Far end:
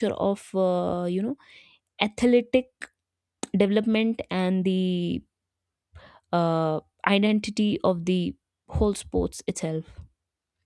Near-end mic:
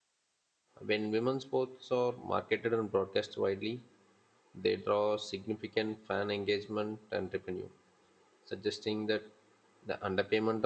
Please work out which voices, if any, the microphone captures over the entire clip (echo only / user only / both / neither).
user only